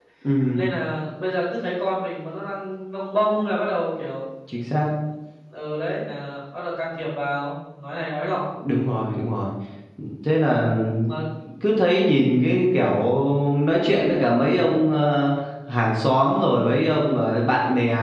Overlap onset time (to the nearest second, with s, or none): none